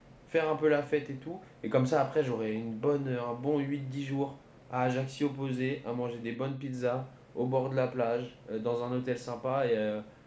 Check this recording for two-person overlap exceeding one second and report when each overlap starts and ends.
none

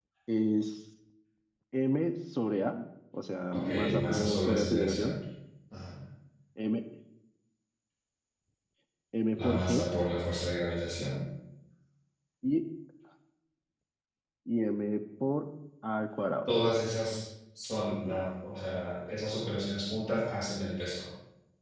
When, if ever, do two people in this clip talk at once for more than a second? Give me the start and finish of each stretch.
3.6-5.2

